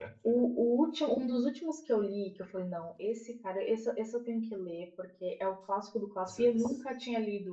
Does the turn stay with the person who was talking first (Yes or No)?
Yes